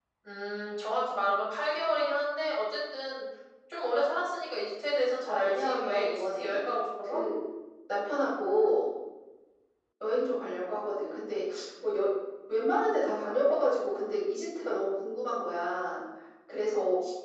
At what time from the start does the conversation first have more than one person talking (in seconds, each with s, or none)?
5.2 s